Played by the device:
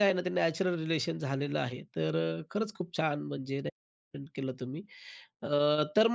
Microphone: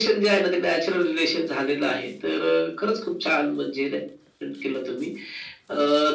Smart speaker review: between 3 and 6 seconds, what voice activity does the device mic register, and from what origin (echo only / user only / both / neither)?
echo only